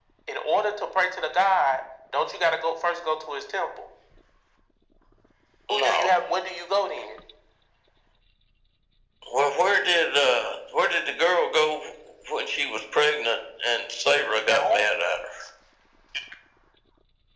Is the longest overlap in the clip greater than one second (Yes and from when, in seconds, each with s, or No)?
No